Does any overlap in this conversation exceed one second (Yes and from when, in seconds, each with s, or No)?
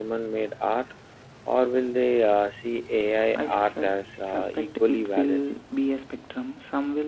Yes, from 3.1 s